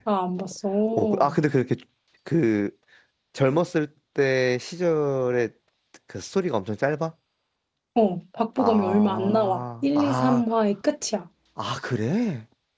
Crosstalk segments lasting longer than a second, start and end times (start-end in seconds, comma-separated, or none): 8.6-10.4